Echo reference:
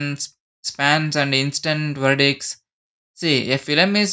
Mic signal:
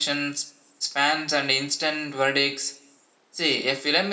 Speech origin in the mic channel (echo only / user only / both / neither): echo only